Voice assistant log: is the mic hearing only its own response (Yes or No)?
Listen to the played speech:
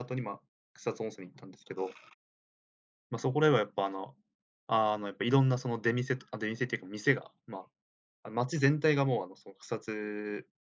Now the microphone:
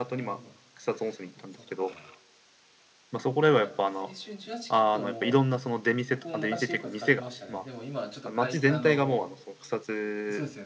No